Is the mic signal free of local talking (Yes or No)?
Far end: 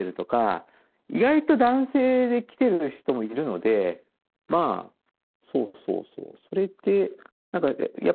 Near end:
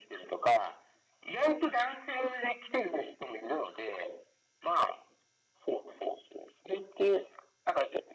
Yes